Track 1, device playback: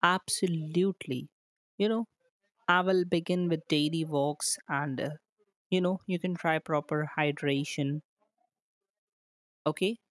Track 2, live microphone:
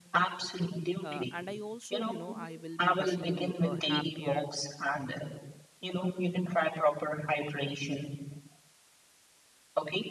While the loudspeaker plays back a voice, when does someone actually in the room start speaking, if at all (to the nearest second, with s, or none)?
1 s